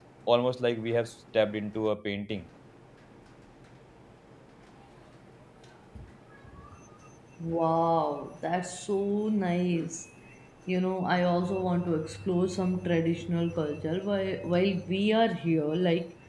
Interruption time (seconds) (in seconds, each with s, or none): none